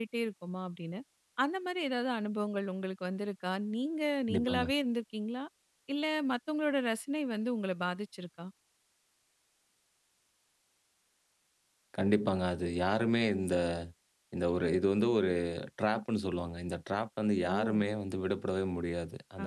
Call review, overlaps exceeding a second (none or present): none